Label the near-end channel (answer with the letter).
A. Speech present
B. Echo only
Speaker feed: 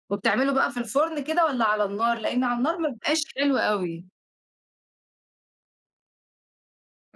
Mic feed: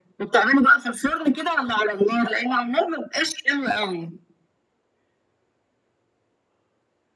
B